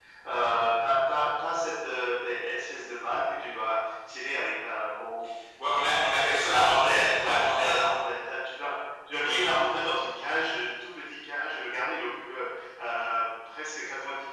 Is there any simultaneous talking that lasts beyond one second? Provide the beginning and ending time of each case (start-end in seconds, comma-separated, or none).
6.5-7.8